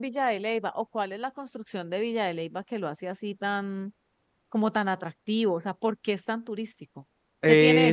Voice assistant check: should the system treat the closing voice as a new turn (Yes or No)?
Yes